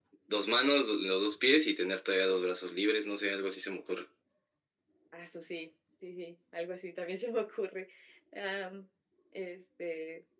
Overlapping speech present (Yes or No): No